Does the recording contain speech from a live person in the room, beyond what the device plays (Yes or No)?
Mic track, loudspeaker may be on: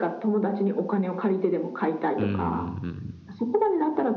Yes